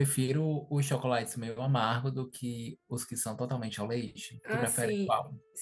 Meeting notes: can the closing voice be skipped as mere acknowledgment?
No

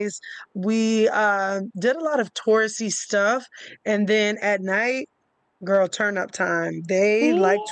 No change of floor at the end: Yes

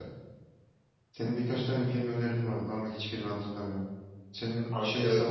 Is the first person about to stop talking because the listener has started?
No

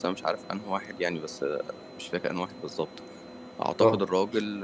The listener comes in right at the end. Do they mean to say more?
No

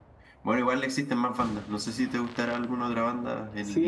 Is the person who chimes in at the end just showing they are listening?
No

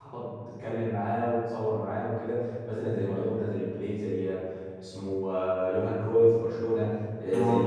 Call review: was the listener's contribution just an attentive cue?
Yes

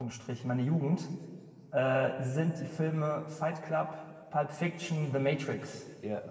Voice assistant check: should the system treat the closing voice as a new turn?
Yes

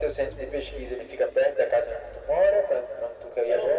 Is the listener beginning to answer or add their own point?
Yes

